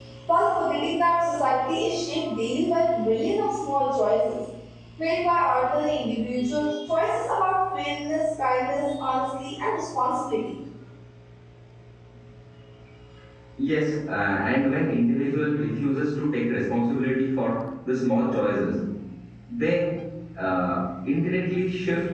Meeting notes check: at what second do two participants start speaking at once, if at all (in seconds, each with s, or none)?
none